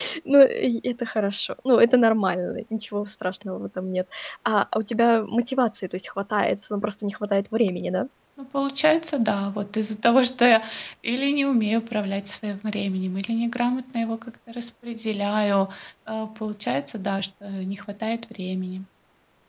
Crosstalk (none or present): none